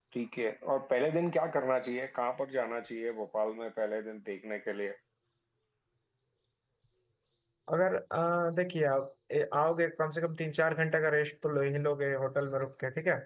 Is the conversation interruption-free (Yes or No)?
Yes